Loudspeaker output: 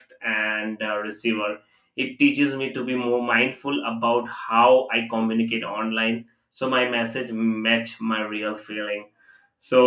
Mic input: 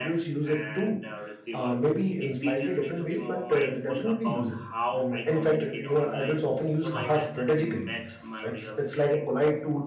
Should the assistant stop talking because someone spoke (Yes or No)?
Yes